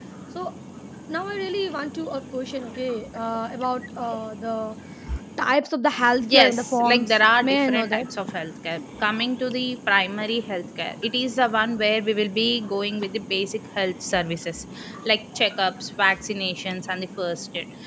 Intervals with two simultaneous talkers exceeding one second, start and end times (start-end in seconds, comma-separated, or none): 6.2-8.1